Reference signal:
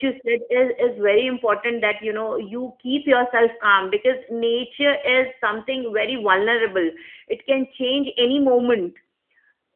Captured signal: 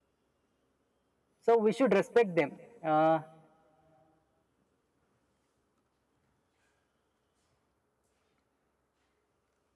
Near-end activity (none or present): present